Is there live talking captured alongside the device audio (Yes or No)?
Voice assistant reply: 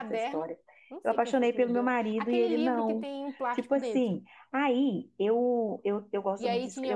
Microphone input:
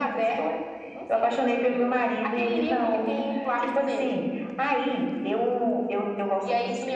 No